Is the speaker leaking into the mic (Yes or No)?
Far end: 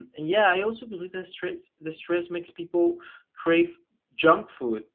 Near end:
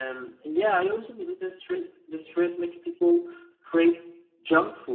Yes